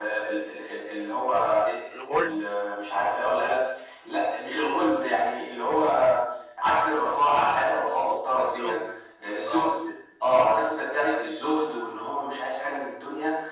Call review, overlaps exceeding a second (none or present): none